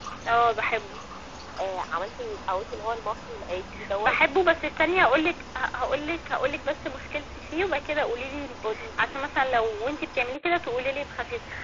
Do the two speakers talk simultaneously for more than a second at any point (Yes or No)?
No